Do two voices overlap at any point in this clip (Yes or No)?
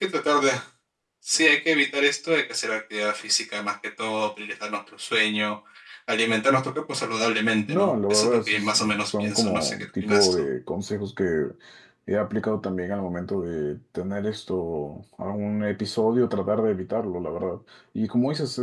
Yes